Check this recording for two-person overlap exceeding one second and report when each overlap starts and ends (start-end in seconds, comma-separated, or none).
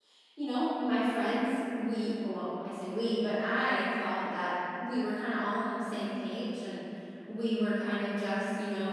none